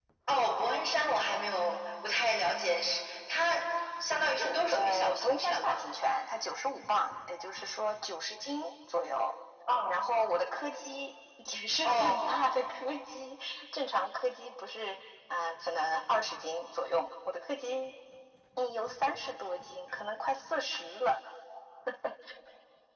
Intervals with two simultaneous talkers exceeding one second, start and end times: 4.1-5.9

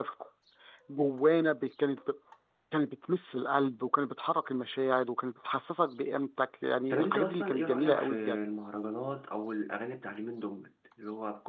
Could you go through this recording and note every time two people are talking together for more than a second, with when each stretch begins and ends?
6.9-8.5

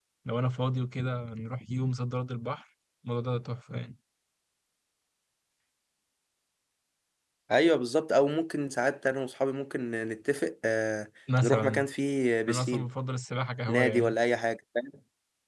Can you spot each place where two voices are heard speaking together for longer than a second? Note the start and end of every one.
none

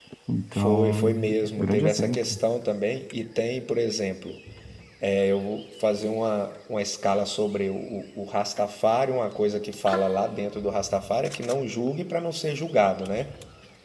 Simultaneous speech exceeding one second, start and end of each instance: 0.5-2.4

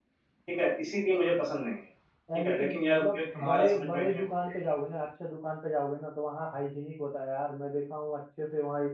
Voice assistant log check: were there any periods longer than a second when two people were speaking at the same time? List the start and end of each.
2.4-4.2

